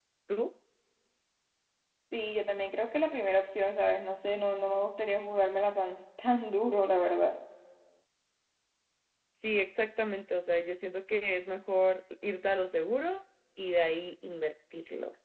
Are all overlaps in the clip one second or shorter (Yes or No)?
Yes